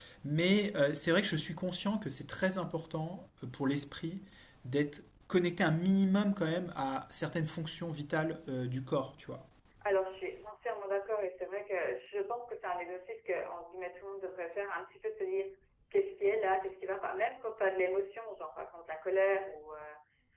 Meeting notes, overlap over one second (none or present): none